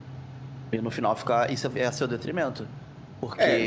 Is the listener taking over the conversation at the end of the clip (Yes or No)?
Yes